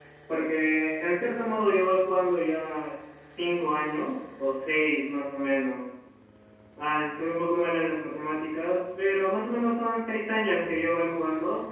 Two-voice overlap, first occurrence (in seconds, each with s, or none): none